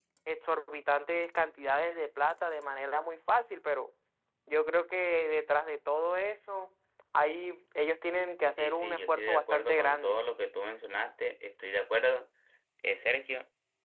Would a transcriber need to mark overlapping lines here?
Yes, from 8.6 s

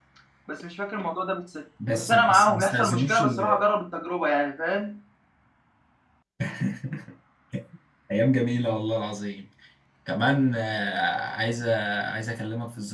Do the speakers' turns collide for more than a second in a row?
Yes, from 1.8 s

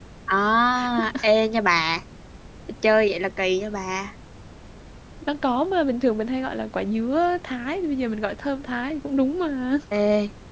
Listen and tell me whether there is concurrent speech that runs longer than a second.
No

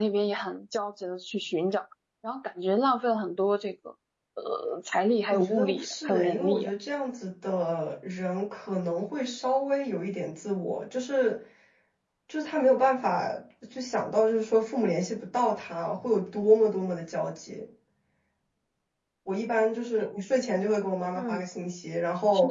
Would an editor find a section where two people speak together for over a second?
Yes, from 5.3 s

